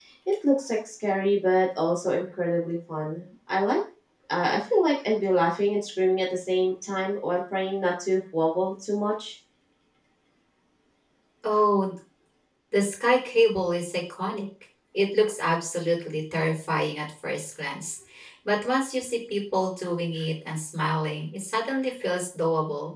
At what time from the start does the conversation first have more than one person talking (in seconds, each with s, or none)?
none